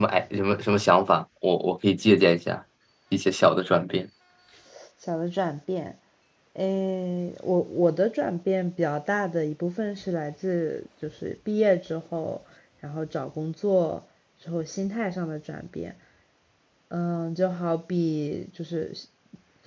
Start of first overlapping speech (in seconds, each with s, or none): none